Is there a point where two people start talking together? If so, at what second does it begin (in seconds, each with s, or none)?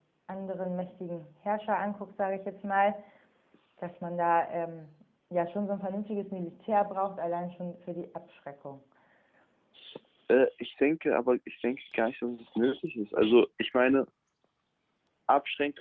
none